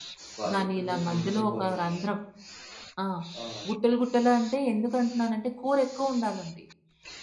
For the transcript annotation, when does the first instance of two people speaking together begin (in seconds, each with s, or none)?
0.5 s